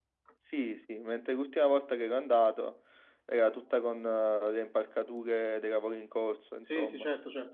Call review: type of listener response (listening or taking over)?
taking over